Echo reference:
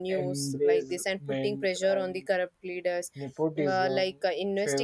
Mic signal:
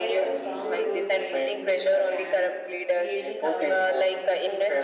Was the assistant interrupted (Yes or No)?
Yes